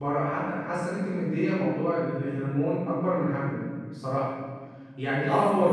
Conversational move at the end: listening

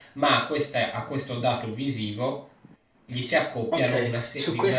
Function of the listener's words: taking over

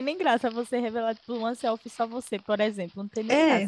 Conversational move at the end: taking over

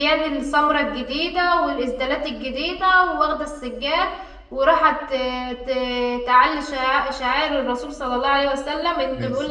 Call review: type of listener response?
listening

